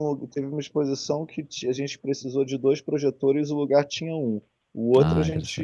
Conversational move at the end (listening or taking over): listening